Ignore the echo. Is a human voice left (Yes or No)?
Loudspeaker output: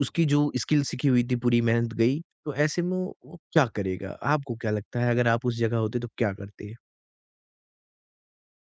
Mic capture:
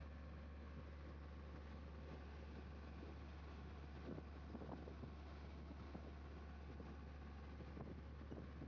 No